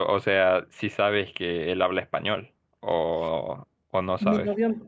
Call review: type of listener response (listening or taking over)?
taking over